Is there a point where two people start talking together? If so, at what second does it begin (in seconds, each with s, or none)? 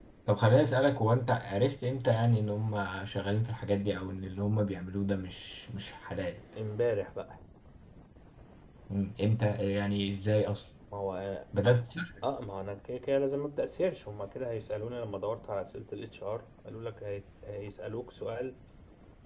none